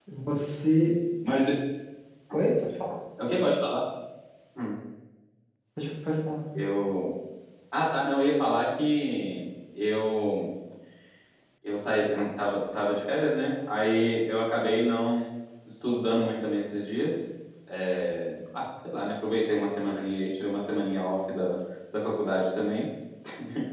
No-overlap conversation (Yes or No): Yes